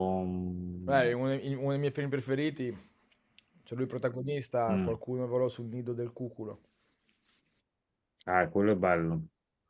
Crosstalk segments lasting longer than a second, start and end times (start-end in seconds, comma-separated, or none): none